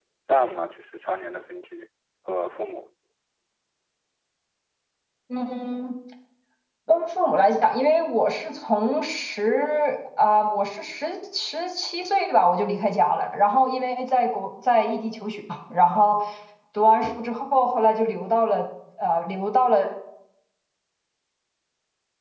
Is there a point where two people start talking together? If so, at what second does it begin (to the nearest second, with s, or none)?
none